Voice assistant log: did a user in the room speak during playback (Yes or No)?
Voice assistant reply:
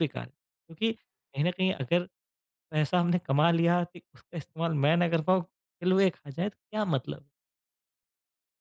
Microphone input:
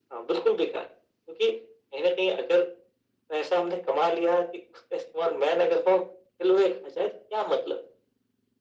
No